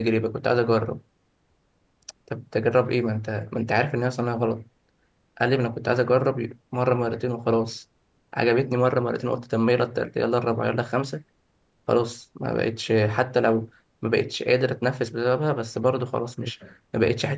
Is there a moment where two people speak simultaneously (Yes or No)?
No